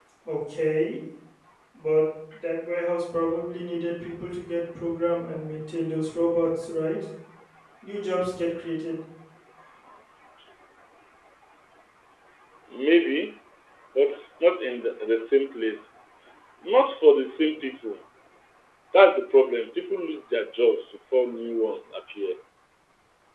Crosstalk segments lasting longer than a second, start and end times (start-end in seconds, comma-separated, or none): none